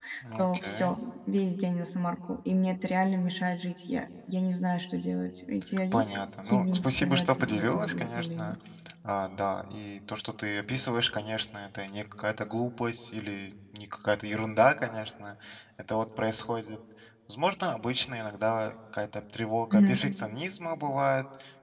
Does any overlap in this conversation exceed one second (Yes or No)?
Yes